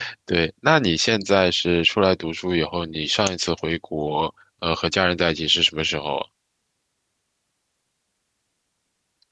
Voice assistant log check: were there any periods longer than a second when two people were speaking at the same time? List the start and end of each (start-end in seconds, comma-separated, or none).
none